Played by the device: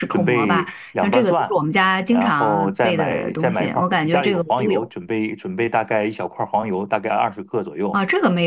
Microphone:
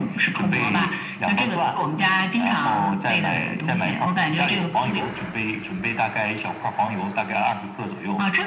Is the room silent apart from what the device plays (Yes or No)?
Yes